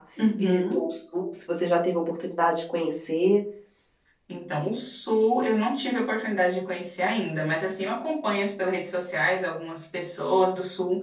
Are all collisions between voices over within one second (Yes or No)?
Yes